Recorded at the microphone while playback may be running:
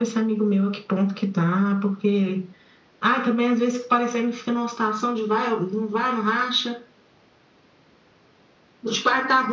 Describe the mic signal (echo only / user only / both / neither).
echo only